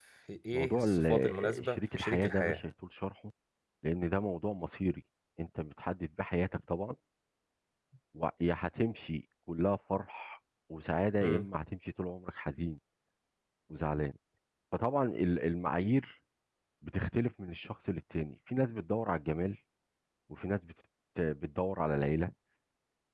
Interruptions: present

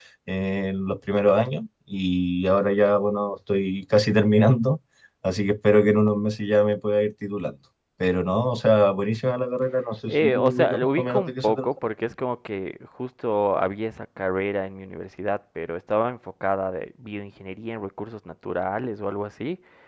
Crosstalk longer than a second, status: present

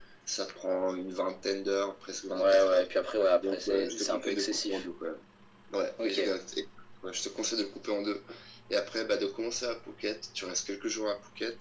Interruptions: present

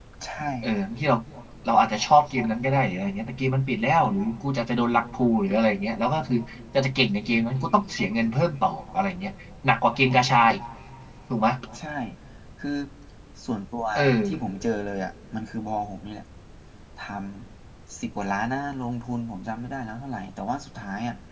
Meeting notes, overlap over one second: none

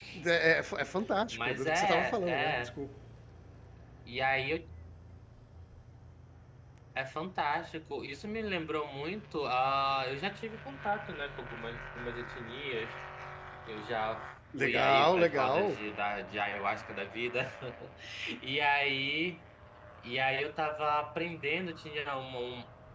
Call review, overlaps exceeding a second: present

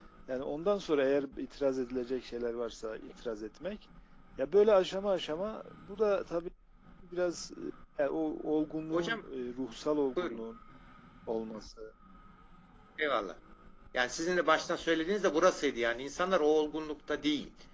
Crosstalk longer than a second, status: none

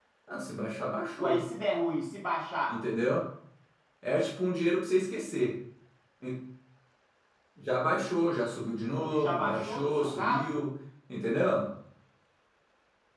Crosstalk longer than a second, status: present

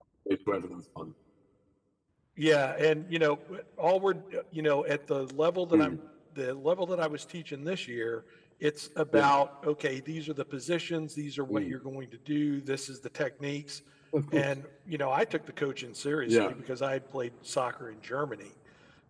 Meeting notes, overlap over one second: none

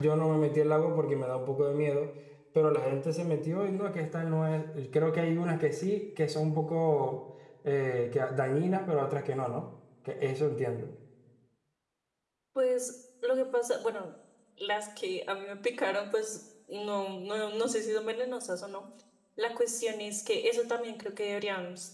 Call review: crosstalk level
none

